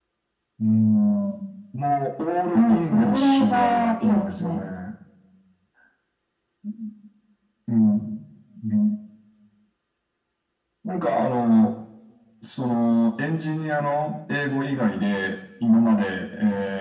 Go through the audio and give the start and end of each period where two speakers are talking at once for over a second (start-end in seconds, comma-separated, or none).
2.5-4.6